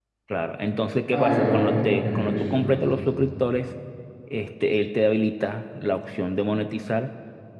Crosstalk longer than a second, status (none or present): present